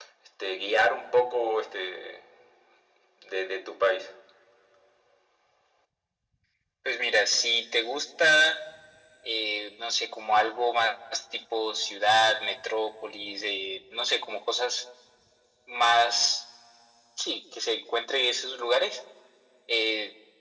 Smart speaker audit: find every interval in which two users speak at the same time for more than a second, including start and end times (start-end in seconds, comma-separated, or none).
none